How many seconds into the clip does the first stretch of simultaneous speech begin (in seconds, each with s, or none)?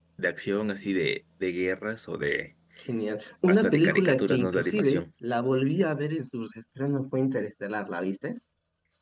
3.5 s